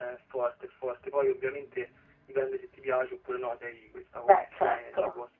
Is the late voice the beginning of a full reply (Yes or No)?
No